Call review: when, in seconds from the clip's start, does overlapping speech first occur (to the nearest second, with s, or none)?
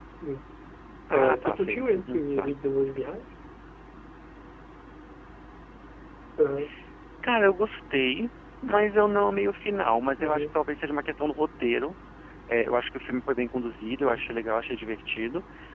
1 s